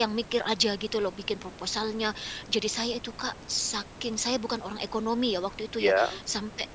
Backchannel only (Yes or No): Yes